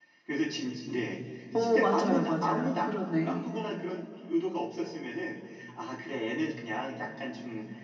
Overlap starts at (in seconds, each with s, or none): 1.5 s